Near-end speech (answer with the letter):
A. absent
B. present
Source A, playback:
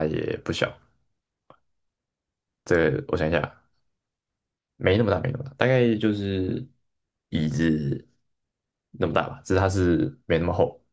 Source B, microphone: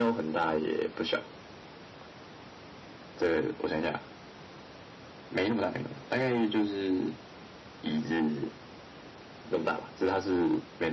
A